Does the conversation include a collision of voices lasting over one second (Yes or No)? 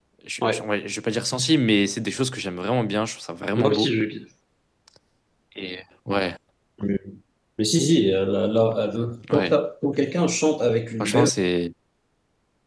No